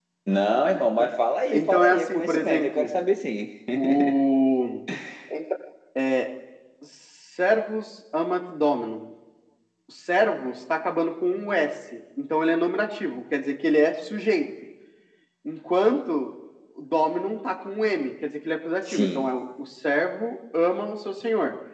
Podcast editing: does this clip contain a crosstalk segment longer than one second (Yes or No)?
Yes